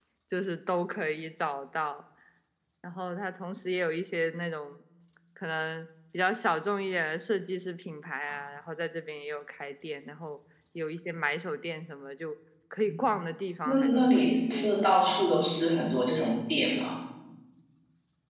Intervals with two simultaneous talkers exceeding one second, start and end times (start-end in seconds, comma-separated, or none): 13.7-14.9